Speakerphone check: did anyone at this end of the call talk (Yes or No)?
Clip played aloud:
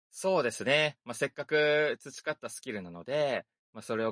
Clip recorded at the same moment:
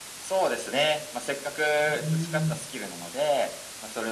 Yes